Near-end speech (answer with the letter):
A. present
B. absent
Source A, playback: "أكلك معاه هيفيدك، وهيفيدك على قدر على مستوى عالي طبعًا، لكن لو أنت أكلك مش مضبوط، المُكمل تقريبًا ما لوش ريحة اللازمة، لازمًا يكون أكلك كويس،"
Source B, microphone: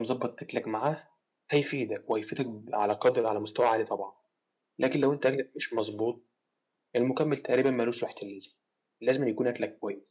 B